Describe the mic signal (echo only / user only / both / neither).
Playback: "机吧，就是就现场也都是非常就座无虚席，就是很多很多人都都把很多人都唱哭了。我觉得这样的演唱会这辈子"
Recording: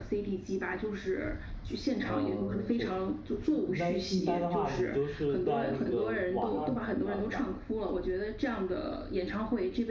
both